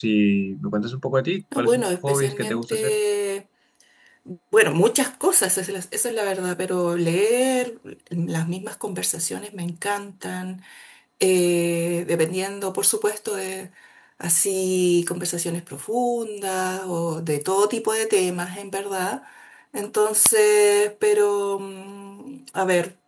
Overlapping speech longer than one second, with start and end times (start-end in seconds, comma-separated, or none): 1.6-3.0